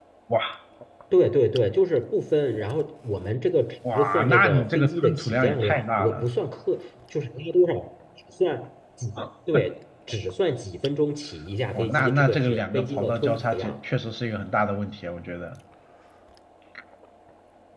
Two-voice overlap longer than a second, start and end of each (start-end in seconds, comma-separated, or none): 3.9-6.2, 11.7-13.8